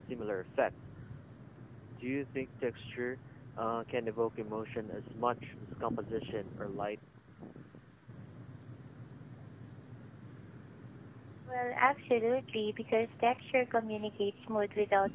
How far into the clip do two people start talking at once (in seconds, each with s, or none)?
none